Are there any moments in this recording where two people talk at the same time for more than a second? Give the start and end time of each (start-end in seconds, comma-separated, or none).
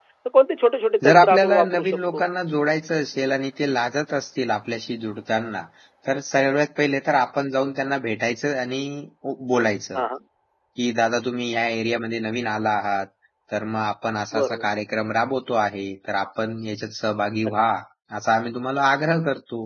1.0-2.3